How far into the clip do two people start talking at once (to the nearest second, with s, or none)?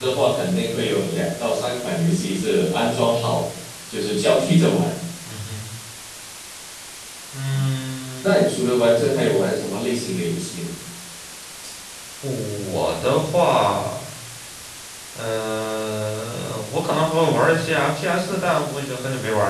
none